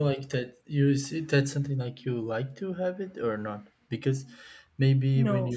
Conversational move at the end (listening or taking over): listening